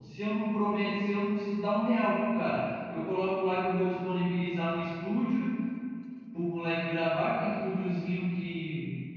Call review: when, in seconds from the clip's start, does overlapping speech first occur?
none

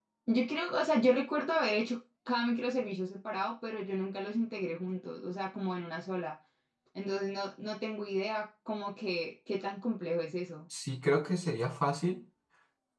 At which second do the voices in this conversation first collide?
none

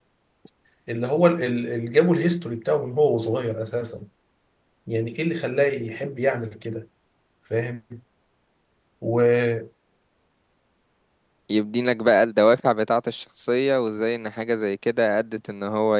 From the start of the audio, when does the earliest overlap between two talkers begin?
none

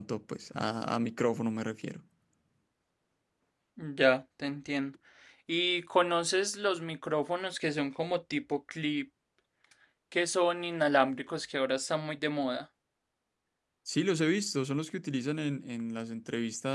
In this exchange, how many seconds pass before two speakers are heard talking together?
none

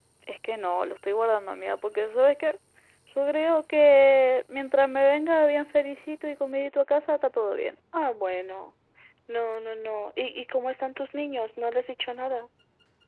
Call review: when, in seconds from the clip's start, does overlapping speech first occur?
none

